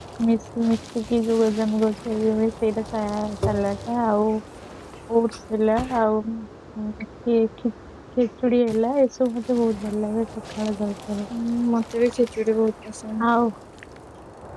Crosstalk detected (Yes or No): No